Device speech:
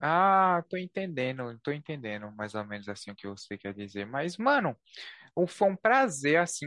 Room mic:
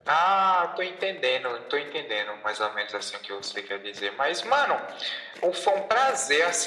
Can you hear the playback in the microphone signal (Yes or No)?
Yes